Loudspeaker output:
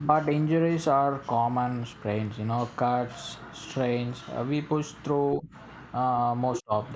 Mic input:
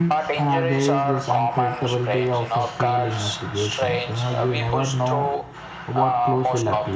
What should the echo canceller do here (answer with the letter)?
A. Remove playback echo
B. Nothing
A